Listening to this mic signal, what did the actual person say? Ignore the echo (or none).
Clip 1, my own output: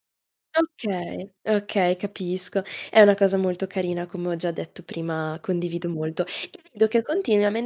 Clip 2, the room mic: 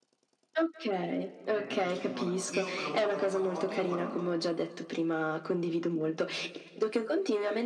Tenet di Christopher Nolan. Io l'ho guardato 4 volte e ancora non l'ho capito.